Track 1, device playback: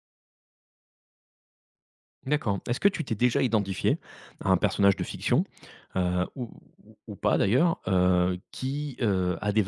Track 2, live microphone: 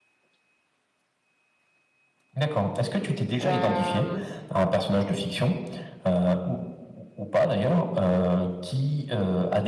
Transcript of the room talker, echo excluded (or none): Hem,